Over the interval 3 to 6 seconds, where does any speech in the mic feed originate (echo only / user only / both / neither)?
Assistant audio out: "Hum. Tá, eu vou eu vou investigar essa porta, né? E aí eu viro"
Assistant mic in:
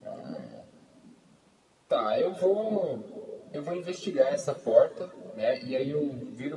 echo only